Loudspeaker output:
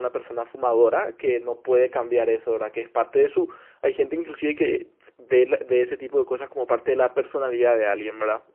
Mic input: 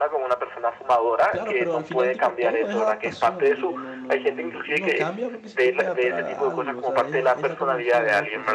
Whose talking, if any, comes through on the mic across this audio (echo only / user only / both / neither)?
both